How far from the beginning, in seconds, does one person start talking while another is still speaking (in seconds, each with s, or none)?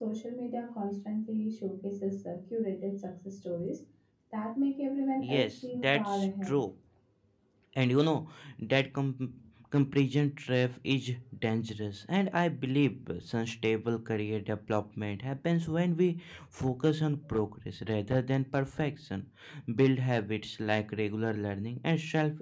5.2 s